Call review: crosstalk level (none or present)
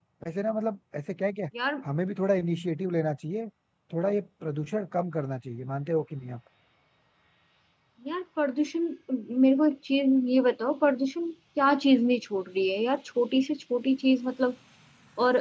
none